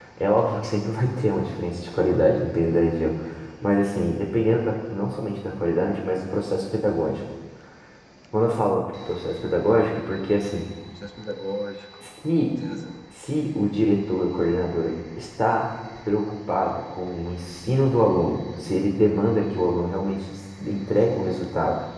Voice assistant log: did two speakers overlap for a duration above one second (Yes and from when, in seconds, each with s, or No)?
No